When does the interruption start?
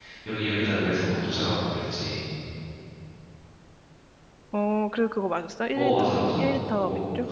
5.7 s

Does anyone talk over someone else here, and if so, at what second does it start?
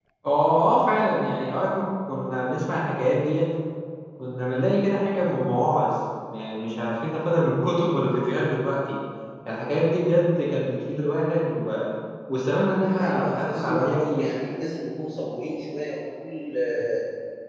12.8 s

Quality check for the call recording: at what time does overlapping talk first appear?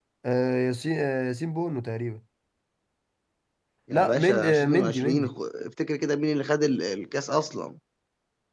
3.9 s

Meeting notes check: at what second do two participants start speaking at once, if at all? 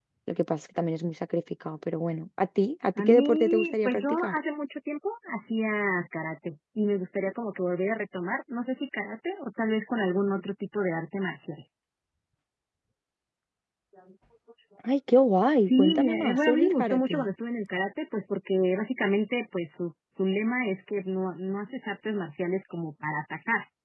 3.0 s

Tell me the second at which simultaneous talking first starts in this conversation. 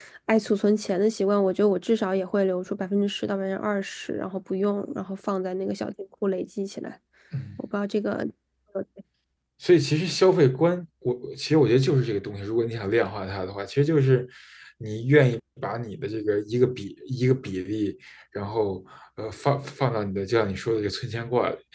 none

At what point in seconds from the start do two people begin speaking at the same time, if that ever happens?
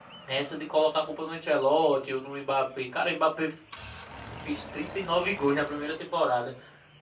none

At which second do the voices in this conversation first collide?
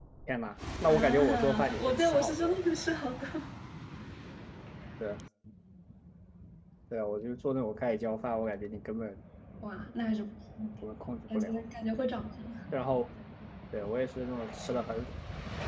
0.9 s

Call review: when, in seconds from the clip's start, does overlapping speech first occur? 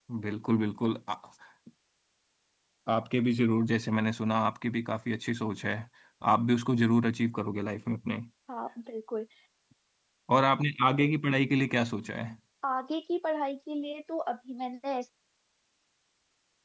none

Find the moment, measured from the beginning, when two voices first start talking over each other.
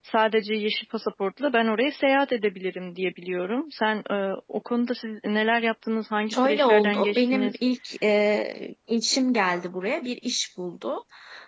6.3 s

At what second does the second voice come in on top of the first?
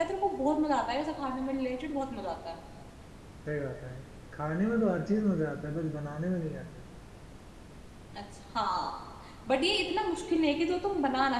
none

